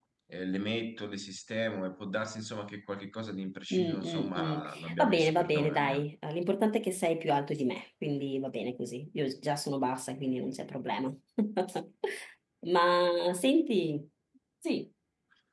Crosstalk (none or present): present